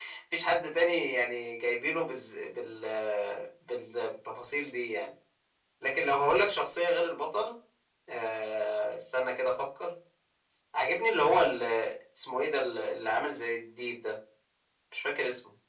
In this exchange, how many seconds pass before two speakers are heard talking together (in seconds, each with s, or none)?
none